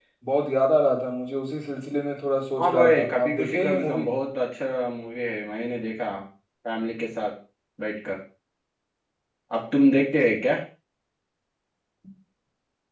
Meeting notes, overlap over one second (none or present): present